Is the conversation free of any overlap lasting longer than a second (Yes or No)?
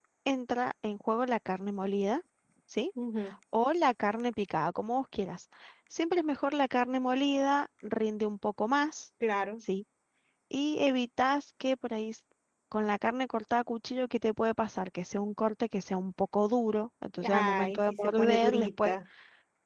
No